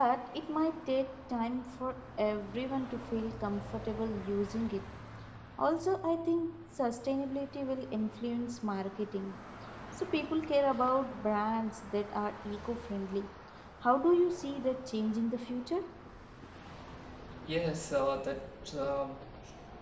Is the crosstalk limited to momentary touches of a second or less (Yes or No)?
Yes